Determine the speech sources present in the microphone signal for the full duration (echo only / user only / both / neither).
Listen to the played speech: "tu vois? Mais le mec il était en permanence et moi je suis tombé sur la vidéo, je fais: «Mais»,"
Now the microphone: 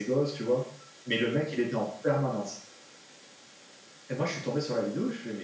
echo only